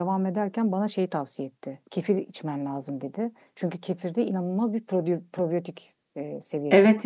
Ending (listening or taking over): taking over